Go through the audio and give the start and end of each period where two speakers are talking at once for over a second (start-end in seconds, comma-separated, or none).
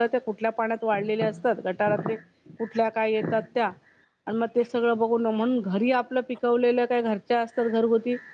none